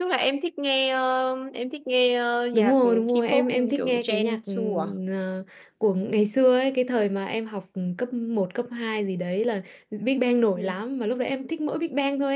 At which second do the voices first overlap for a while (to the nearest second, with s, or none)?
3 s